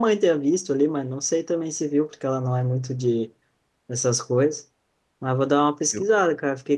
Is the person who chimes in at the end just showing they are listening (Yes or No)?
Yes